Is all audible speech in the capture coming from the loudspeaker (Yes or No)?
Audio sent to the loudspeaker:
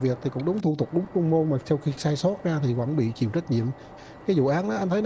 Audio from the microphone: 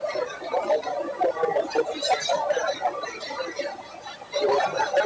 Yes